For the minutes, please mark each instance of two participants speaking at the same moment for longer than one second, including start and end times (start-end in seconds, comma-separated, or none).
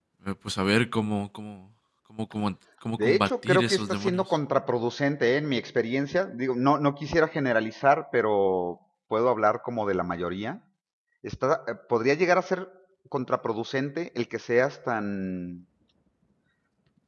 3.0-4.2